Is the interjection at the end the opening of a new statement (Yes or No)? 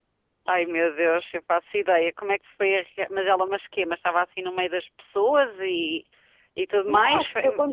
Yes